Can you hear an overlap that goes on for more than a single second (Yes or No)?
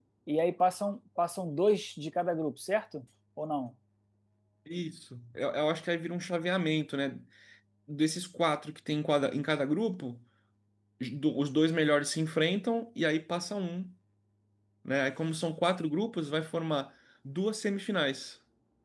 No